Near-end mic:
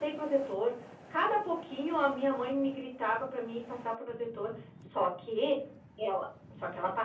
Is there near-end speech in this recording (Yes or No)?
No